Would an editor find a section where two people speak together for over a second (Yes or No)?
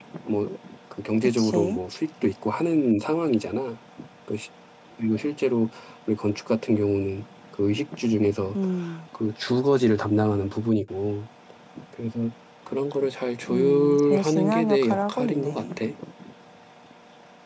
Yes